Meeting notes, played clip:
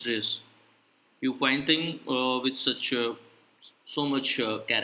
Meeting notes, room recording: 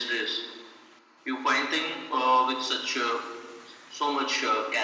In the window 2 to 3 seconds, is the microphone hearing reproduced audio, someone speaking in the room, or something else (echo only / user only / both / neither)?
echo only